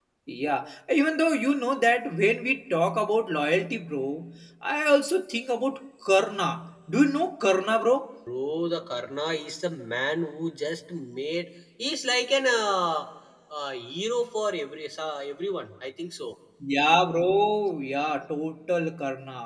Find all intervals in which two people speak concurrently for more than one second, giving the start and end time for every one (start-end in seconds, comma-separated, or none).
none